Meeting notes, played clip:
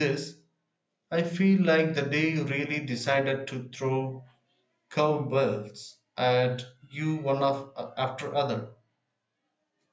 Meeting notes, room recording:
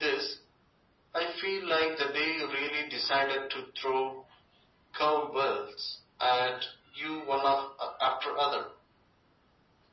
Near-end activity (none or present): none